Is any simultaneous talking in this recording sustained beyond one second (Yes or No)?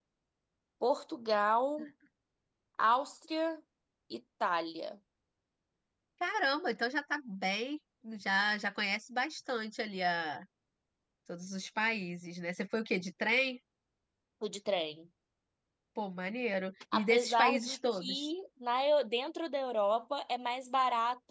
Yes